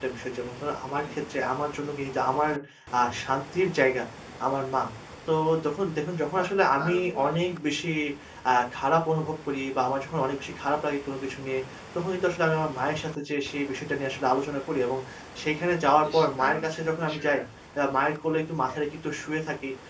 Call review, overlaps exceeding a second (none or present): present